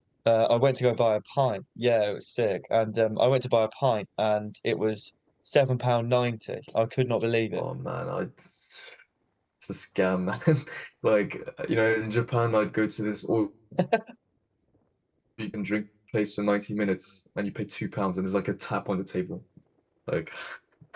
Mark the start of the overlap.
none

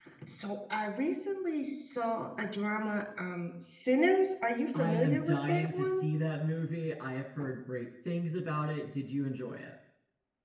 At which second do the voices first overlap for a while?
4.7 s

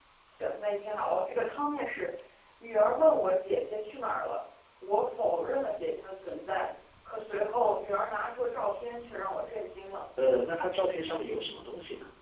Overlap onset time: none

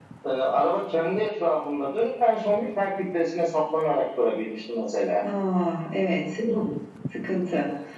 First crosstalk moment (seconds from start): none

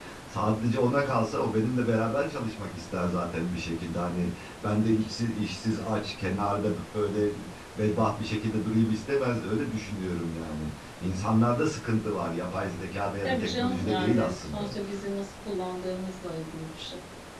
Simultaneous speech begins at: 13.2 s

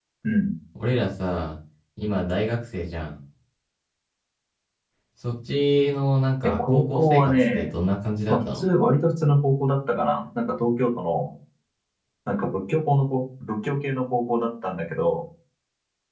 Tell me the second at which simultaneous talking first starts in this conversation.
6.4 s

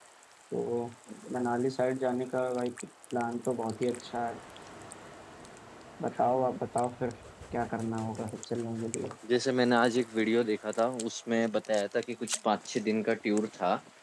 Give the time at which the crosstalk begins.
none

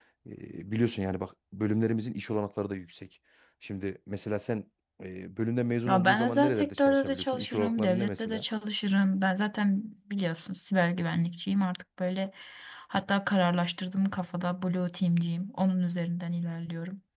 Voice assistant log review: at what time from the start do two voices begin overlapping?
5.9 s

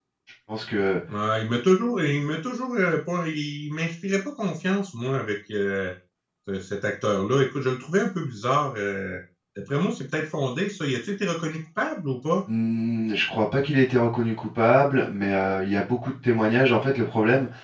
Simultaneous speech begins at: none

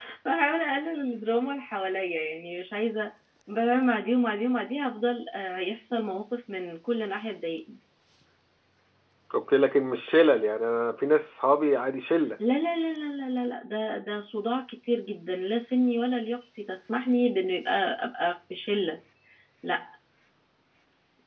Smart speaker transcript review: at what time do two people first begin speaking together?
none

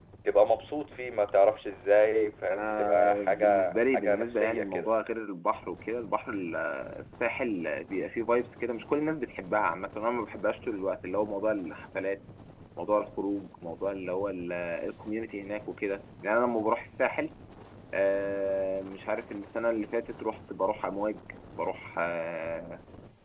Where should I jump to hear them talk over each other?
2.5 s

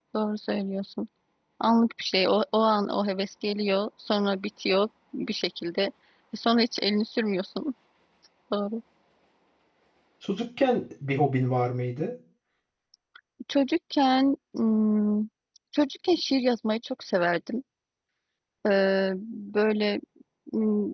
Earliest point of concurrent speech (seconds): none

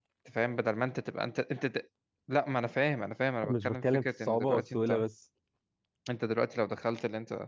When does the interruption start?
3.4 s

